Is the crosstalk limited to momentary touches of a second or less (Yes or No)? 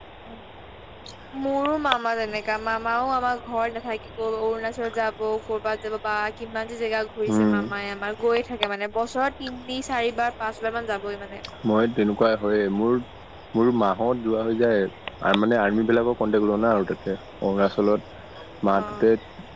Yes